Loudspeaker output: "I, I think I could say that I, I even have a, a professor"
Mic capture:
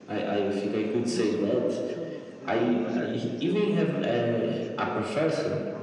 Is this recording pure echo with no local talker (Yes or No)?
No